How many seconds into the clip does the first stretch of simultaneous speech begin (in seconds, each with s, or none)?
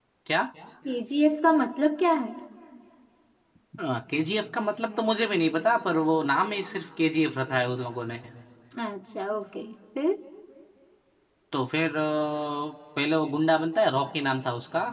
none